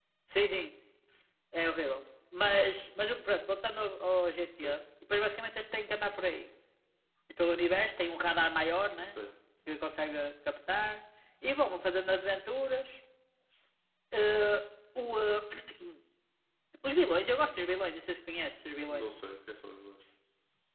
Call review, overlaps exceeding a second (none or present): none